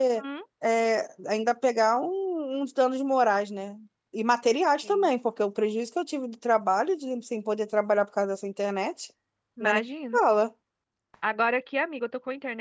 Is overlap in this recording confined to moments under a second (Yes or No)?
Yes